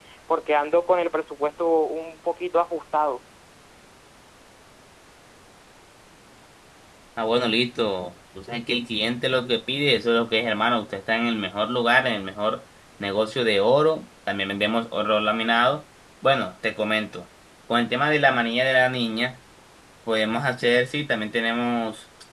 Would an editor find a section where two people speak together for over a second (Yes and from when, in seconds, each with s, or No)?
No